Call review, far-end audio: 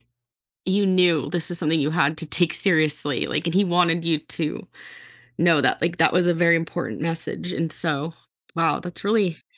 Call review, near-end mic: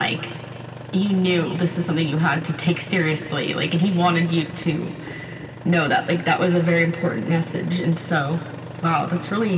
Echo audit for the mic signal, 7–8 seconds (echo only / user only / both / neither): echo only